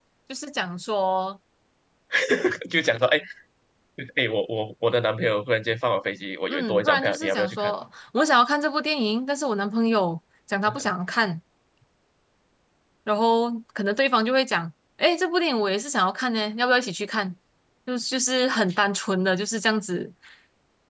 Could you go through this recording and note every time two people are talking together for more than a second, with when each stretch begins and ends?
6.5-7.7

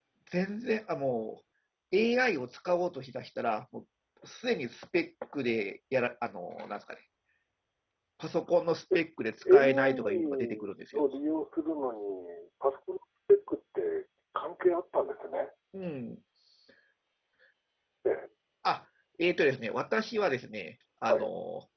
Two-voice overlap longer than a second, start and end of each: 9.5-11.1

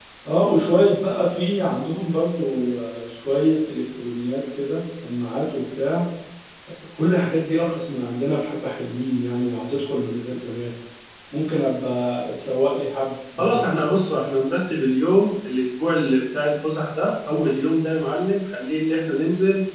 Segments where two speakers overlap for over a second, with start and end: none

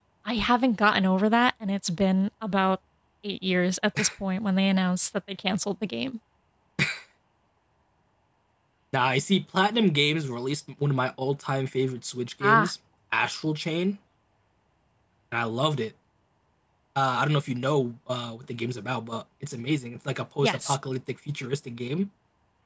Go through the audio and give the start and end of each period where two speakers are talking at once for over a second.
none

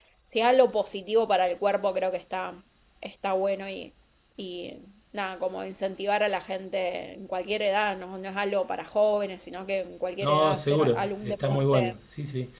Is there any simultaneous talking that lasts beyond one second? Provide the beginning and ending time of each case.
10.2-11.9

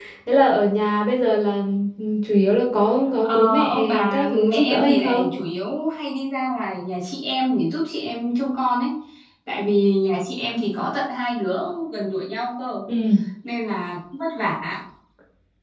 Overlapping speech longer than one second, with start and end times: 3.2-5.3

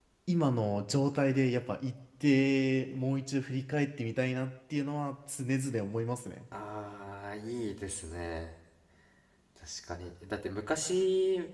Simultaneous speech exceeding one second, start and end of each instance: none

